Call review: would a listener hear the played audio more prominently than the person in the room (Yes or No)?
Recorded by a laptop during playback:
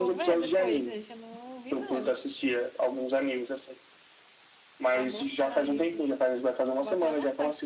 Yes